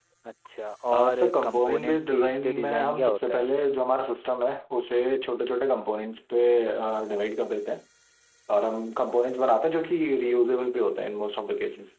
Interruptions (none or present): present